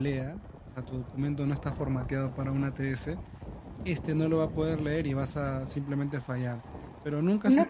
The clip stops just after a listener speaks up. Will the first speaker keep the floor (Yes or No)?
No